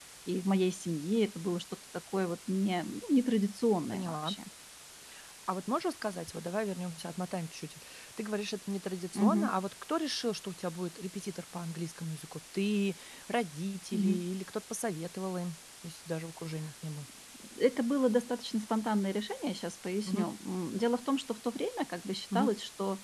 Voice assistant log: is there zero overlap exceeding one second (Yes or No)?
Yes